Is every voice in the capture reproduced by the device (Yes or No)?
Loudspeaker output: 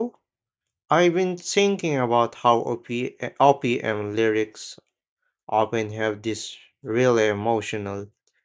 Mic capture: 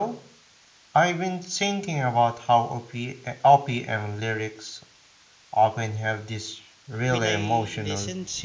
No